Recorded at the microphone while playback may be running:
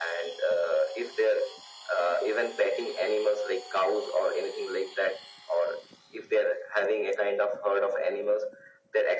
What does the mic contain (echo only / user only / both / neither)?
echo only